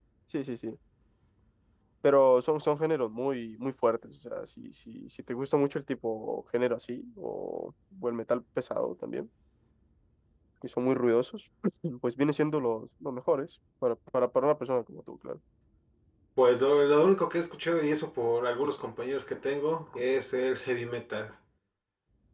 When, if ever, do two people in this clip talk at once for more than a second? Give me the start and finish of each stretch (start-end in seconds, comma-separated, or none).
none